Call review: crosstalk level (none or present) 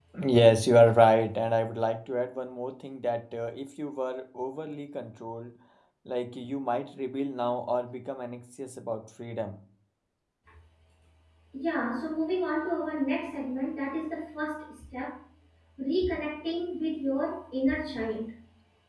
none